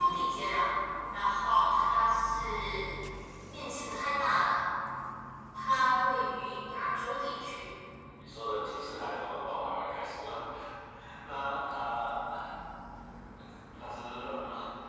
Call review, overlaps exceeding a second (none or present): none